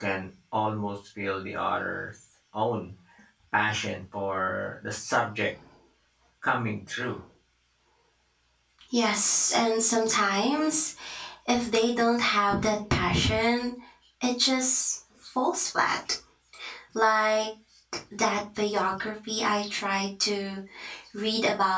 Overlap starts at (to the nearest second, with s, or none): none